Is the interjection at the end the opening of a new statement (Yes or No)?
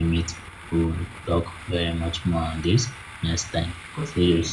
Yes